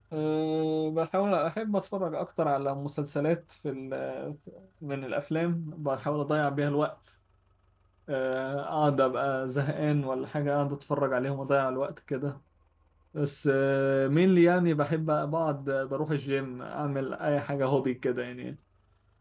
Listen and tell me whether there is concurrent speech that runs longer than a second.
No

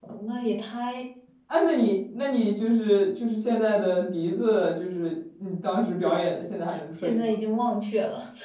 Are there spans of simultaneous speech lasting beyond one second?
No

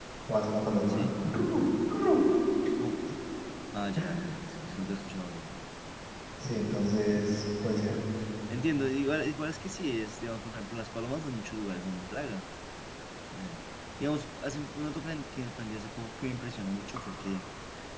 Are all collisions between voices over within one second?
Yes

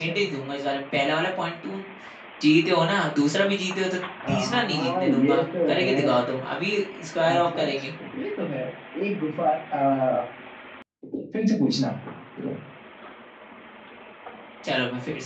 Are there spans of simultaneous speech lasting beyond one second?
Yes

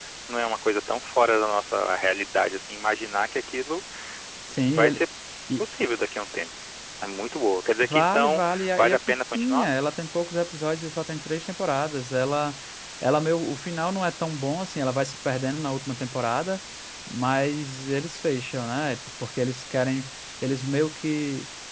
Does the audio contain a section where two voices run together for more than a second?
Yes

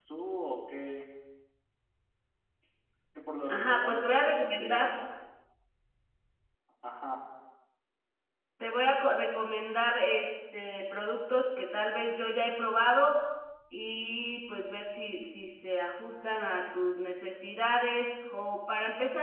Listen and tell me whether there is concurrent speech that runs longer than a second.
Yes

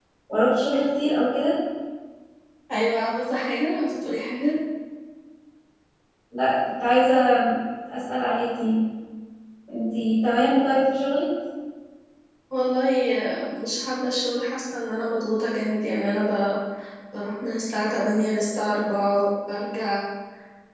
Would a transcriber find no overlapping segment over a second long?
Yes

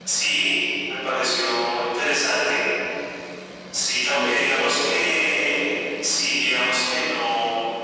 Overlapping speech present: Yes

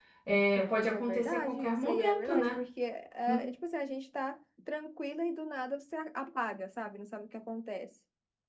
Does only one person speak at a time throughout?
No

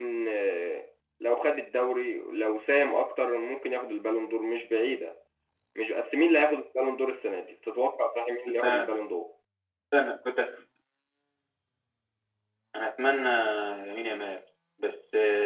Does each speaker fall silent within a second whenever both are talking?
Yes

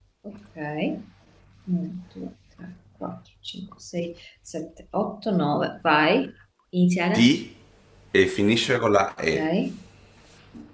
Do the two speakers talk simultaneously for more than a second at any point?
No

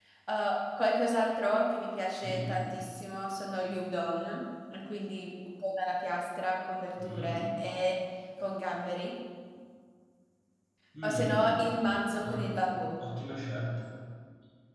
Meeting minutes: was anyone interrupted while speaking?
Yes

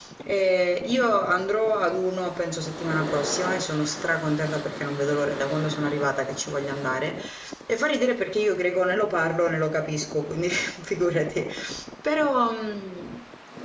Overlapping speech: No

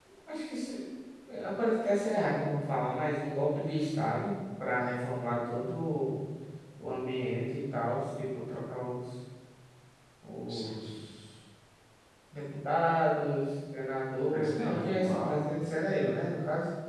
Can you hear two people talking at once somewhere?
Yes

